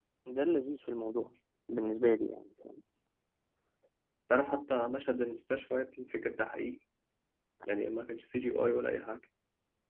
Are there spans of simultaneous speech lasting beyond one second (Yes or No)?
No